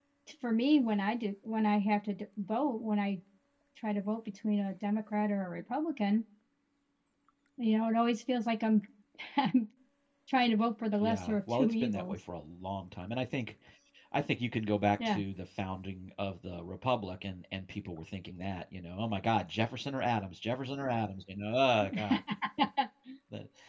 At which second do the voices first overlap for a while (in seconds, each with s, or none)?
11.0 s